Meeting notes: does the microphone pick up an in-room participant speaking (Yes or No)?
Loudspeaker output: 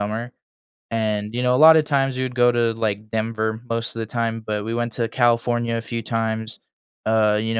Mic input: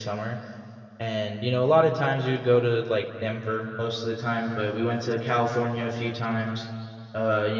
No